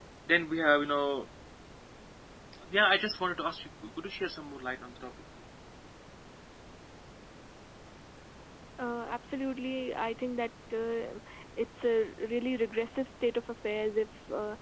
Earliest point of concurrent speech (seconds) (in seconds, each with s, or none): none